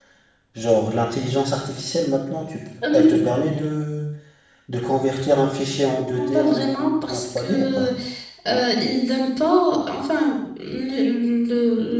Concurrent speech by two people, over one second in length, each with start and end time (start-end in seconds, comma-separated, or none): 6.1-7.9